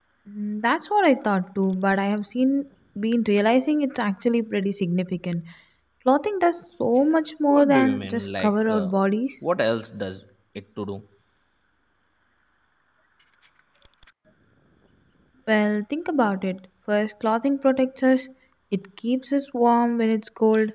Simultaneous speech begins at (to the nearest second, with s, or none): 8 s